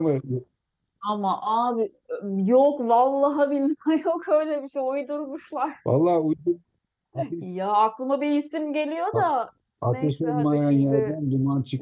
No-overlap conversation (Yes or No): No